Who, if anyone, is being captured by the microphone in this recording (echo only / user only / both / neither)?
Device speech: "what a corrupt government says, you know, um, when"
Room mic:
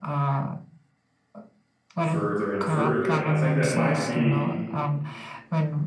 both